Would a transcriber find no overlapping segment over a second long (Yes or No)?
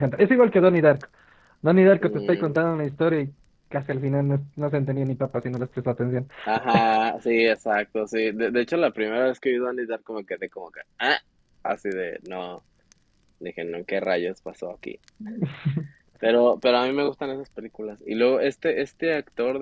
Yes